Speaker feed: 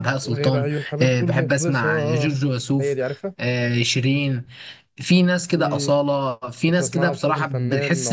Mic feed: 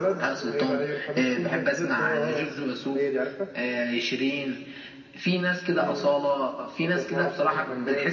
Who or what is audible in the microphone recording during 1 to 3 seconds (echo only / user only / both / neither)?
echo only